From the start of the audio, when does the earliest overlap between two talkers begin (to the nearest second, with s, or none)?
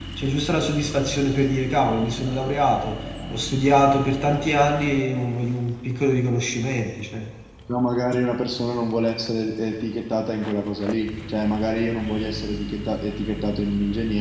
none